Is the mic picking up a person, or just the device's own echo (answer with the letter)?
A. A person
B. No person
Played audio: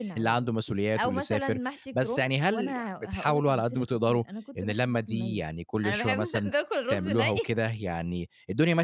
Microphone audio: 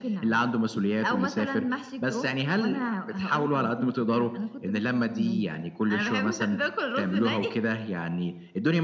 B